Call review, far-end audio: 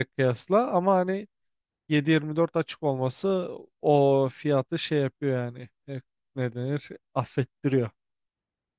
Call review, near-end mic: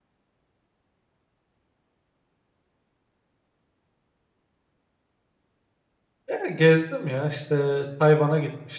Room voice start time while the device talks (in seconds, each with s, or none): 6.3 s